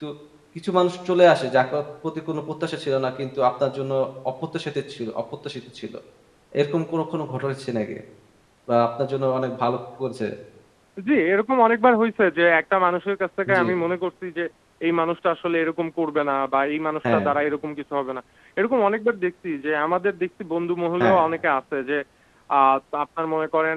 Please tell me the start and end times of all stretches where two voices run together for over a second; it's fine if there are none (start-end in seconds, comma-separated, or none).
none